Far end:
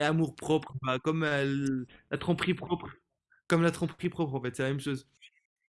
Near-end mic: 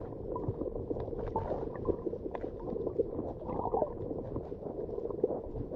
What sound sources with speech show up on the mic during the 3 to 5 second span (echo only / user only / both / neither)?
neither